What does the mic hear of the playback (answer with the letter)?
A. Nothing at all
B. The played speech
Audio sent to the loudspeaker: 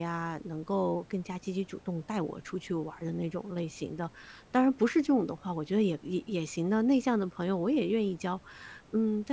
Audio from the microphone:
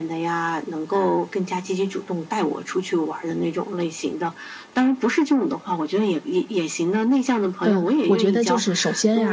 B